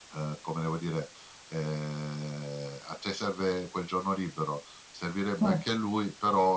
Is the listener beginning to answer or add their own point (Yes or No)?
No